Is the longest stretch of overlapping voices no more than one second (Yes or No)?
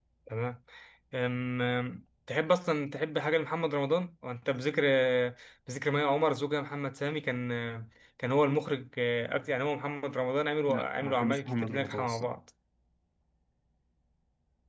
No